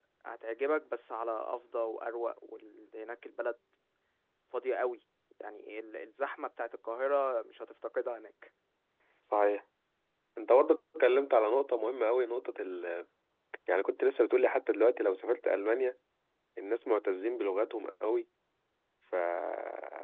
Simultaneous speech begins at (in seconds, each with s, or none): none